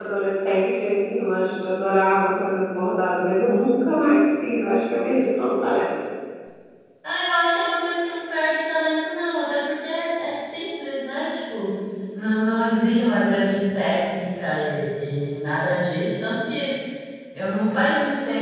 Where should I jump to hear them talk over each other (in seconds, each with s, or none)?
none